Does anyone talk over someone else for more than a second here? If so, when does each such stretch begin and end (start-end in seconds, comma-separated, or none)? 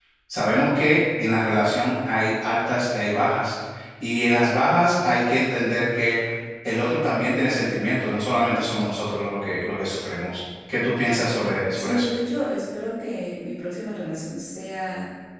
none